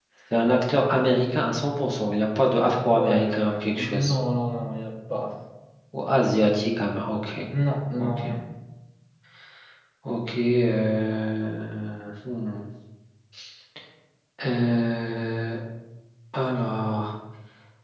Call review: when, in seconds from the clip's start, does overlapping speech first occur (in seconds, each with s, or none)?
2.9 s